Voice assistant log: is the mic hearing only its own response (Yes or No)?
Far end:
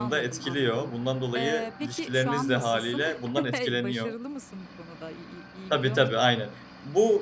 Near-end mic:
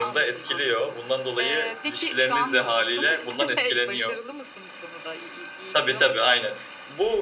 Yes